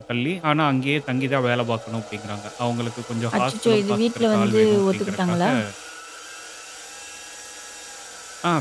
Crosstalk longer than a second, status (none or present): present